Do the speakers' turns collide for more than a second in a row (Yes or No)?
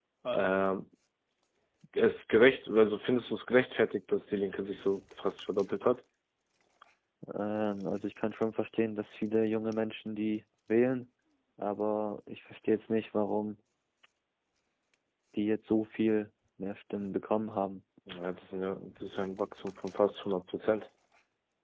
No